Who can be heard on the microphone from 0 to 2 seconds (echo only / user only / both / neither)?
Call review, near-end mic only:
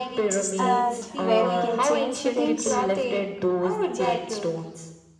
both